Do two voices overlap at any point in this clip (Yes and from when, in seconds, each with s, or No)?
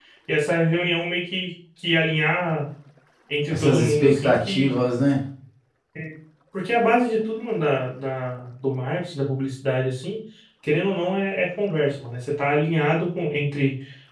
Yes, from 3.5 s